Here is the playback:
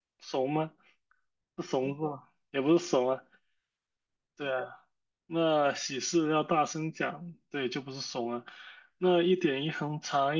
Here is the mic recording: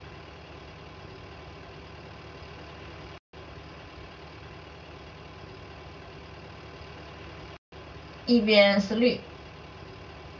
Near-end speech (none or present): present